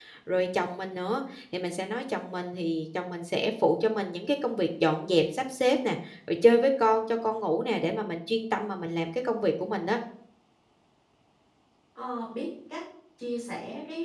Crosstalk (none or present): none